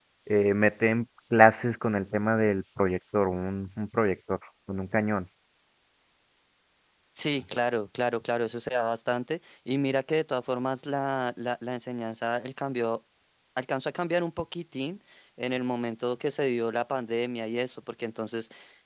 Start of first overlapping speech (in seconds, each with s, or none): none